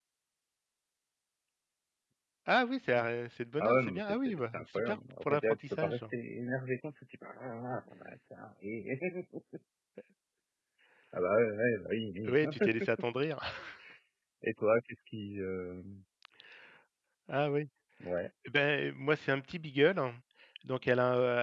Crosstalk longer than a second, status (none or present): present